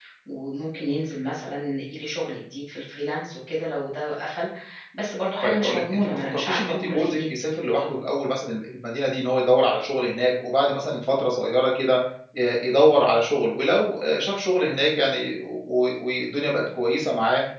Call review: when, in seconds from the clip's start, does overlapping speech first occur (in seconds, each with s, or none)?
5.4 s